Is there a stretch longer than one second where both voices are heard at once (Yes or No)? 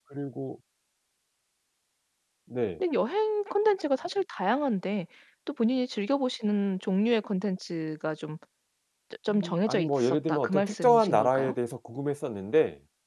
Yes